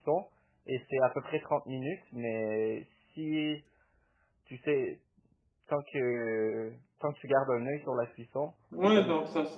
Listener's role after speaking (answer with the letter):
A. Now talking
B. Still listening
A